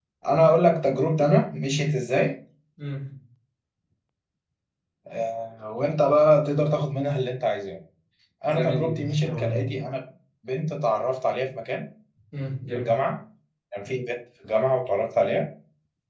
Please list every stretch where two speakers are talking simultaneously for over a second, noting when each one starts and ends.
8.4-9.7

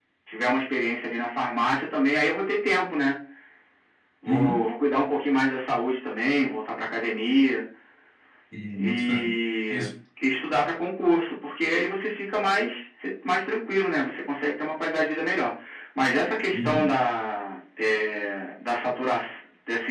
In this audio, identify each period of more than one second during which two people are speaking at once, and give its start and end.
none

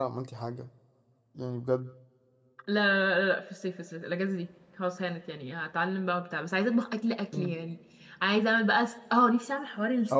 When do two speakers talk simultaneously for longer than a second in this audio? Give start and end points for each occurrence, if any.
none

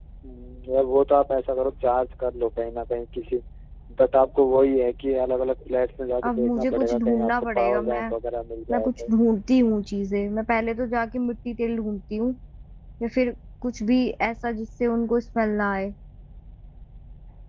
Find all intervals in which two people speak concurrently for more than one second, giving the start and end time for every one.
6.2-8.1

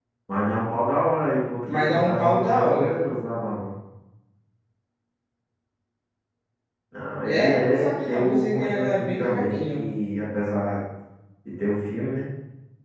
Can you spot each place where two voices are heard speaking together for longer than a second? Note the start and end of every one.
1.7-3.0, 7.2-9.8

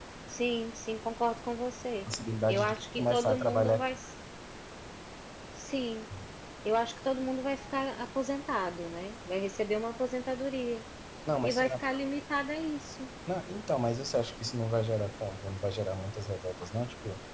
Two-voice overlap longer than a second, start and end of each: 2.5-3.9

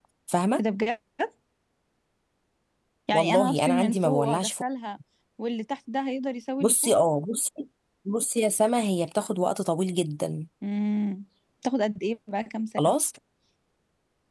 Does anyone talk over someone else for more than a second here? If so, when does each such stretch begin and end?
3.1-4.6

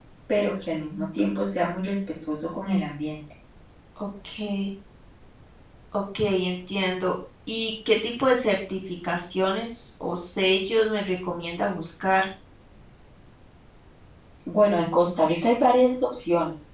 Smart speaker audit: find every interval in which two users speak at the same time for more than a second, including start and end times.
none

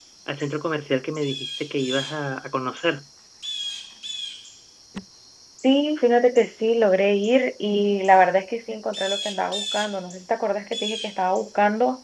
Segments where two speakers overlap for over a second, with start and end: none

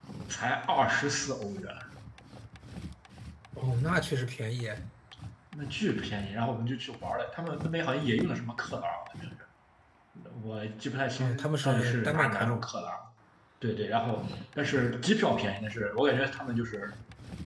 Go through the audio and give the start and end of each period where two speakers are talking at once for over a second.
11.2-12.6

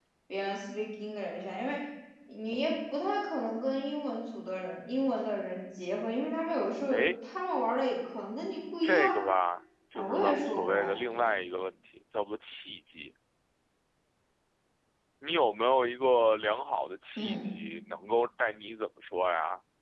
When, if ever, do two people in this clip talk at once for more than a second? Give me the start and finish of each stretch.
9.9-11.3

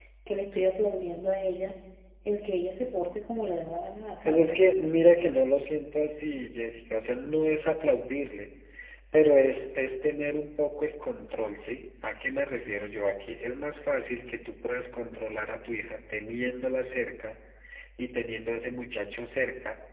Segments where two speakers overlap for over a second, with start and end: none

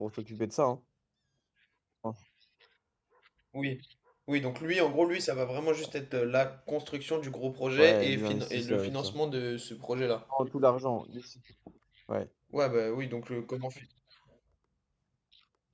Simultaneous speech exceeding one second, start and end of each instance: 7.8-9.2

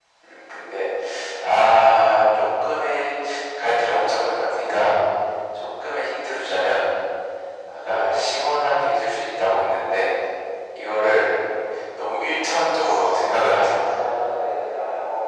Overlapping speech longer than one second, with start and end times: none

